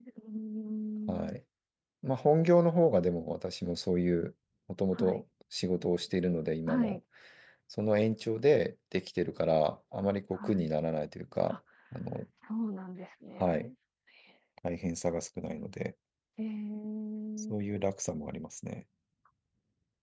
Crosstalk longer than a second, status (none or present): none